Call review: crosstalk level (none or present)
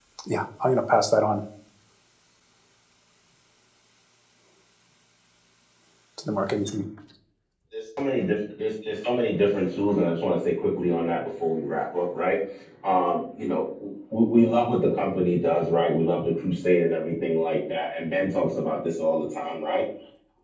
none